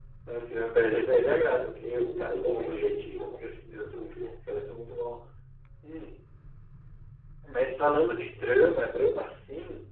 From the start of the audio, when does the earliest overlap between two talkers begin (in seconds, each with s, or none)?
1.9 s